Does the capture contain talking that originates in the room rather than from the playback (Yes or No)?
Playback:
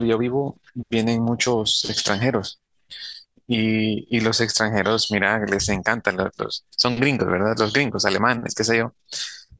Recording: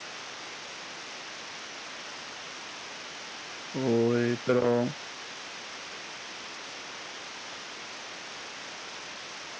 Yes